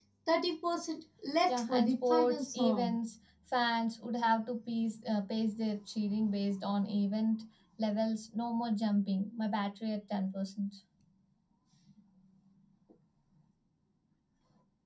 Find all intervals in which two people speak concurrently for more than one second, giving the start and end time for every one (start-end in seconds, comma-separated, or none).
1.5-3.0